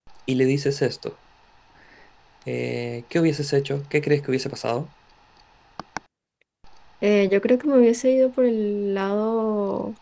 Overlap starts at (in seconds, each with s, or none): none